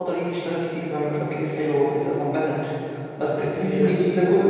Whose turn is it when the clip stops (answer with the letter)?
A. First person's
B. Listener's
A